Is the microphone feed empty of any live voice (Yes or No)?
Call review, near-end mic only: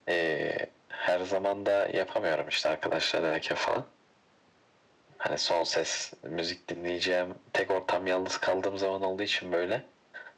Yes